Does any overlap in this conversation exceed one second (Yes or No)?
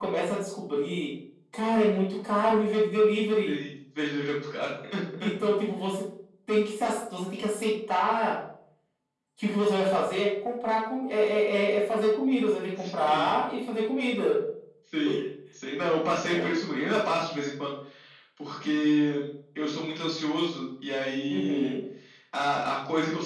No